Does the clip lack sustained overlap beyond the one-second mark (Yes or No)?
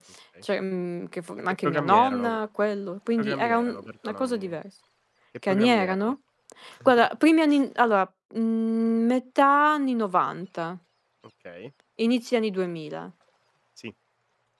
No